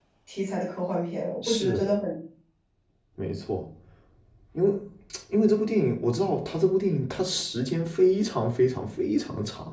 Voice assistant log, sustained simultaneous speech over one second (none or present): none